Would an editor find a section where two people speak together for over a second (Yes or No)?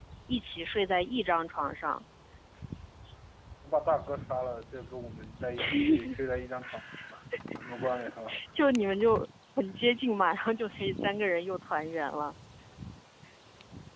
No